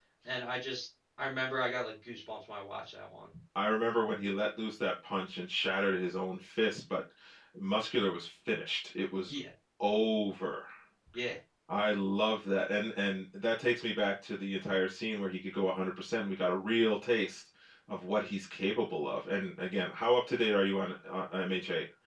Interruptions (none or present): none